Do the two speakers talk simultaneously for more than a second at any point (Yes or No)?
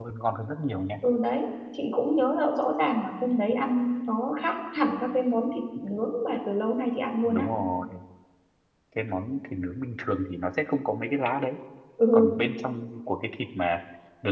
No